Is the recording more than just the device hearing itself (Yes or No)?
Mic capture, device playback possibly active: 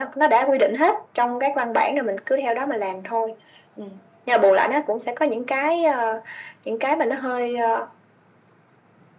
No